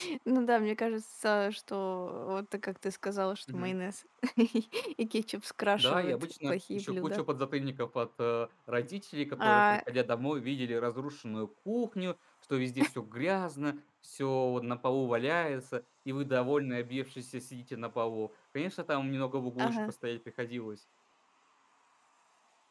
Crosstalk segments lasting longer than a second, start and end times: 5.8-7.2

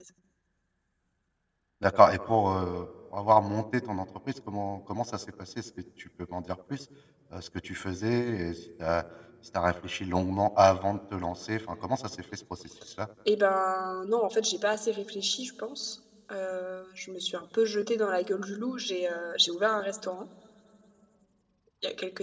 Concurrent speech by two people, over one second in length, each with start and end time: none

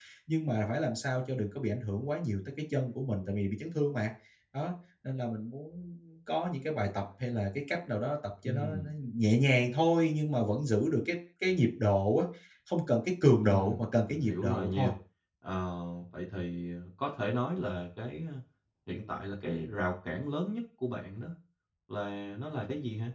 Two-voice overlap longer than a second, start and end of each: 13.4-14.9

